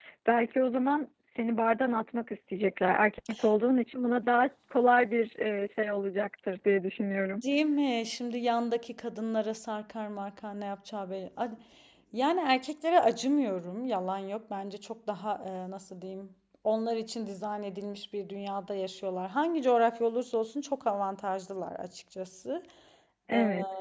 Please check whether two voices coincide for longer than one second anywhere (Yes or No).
No